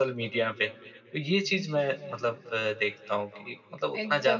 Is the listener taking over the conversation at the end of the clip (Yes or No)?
Yes